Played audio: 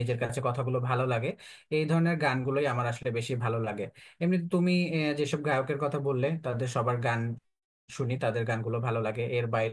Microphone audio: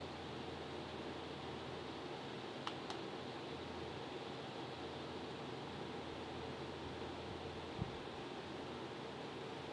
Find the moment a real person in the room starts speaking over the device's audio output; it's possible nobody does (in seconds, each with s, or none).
none